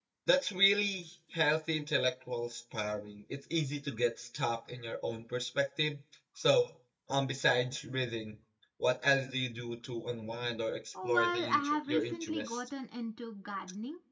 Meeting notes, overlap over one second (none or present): present